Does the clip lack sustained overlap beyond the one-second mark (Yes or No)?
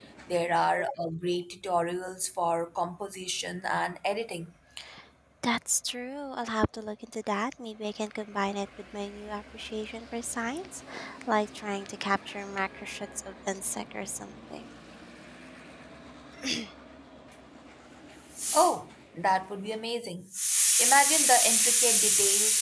Yes